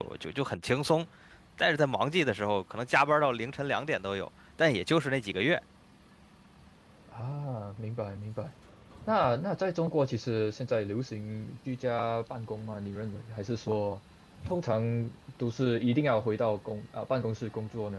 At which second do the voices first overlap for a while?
none

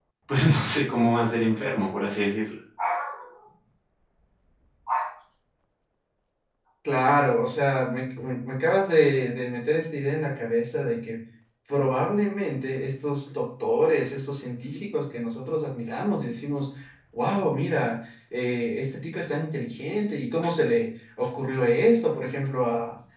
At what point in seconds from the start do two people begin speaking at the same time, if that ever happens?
none

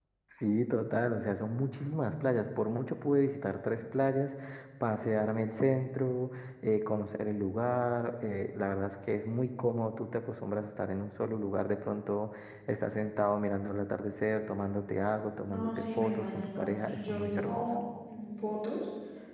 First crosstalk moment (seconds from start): 15.5 s

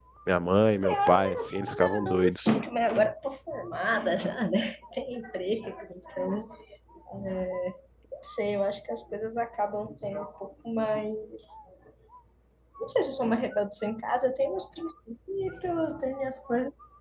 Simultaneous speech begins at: 0.8 s

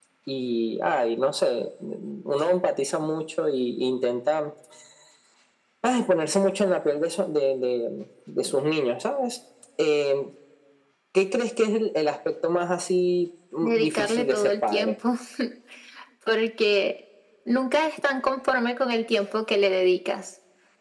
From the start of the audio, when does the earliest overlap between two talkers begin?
13.6 s

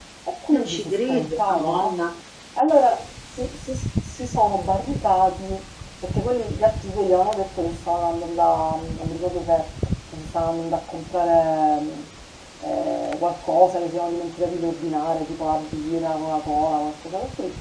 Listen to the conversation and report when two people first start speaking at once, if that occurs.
0.5 s

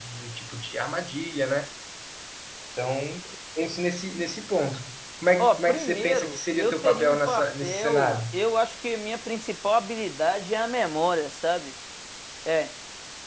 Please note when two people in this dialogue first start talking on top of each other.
5.4 s

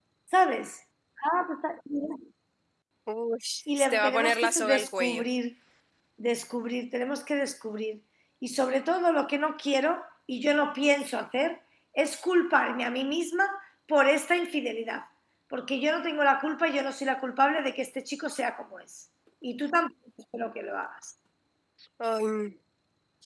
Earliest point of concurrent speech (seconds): 3.9 s

